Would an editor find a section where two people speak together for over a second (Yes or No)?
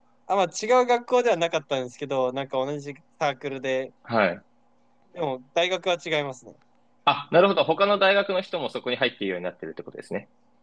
No